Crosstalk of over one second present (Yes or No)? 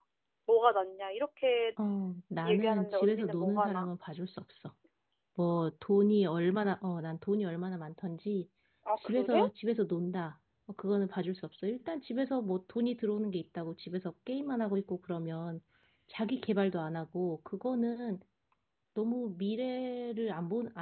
Yes